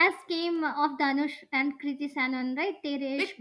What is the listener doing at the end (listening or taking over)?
taking over